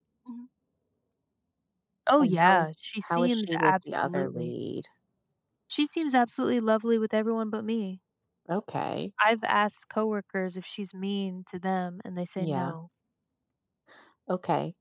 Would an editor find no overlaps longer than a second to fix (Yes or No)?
No